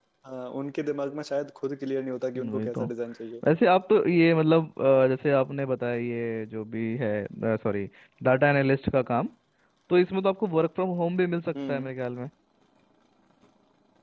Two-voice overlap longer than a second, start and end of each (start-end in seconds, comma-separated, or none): none